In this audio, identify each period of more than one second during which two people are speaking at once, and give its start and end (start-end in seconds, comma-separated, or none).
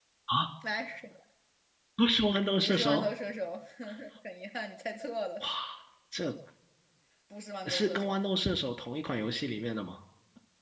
none